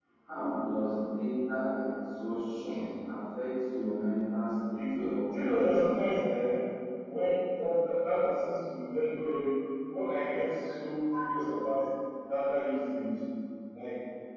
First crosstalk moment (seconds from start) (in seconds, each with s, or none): 4.7 s